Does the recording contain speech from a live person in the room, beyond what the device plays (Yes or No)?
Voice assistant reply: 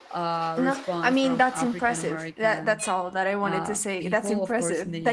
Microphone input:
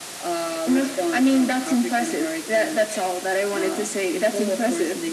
No